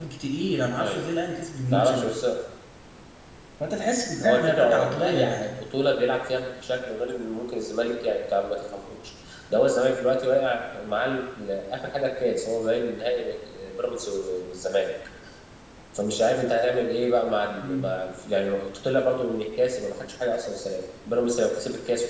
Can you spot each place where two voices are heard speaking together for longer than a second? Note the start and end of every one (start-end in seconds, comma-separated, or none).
4.2-5.6